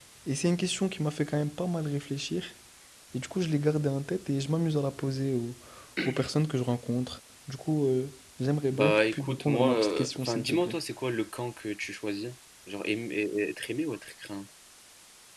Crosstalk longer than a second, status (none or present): present